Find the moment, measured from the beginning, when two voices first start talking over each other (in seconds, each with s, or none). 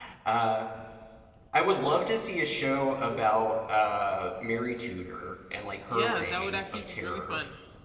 5.9 s